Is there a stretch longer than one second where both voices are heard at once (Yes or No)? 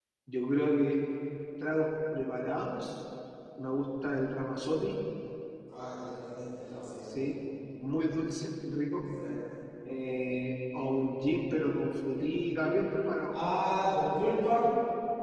No